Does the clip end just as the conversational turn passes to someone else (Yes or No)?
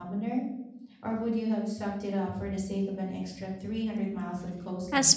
Yes